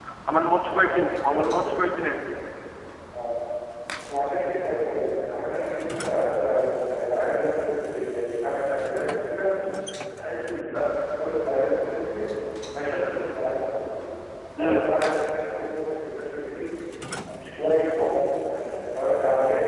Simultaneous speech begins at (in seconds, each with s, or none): 0.7 s